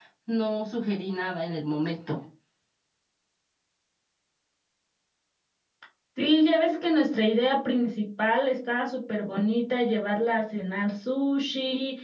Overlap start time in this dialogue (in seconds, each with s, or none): none